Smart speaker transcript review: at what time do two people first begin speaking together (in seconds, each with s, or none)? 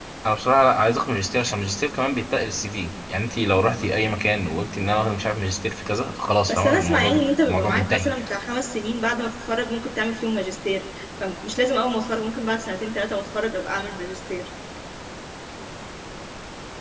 6.5 s